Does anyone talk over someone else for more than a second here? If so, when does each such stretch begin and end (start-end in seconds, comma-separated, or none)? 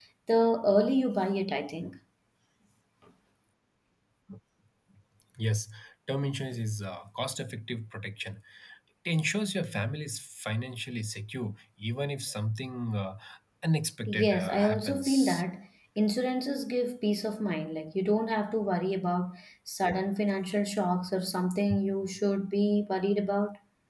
14.1-15.4